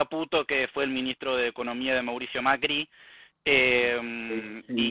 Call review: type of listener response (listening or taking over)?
listening